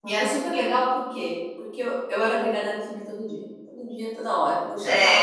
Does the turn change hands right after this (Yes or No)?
Yes